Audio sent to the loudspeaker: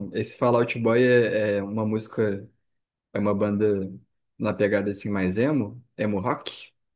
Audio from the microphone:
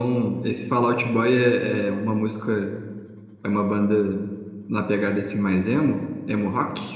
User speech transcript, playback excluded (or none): none